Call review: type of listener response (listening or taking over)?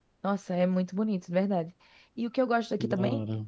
listening